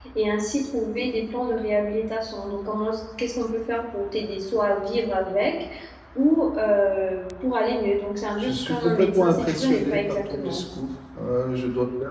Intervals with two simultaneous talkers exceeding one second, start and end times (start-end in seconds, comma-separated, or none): 8.4-10.6